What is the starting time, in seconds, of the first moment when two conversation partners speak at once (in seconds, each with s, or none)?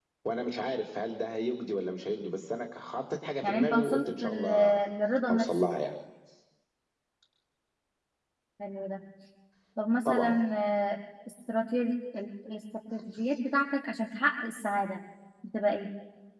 3.4 s